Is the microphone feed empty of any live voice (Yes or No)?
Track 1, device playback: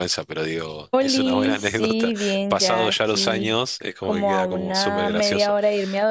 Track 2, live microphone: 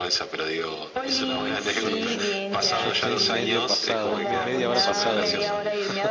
No